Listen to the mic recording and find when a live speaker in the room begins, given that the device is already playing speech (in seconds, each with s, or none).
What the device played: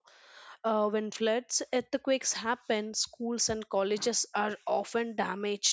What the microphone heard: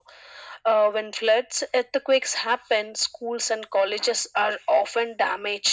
none